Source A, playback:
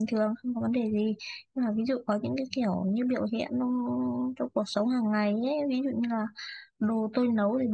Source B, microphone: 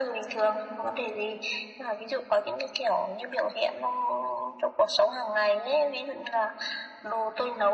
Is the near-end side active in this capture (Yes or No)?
No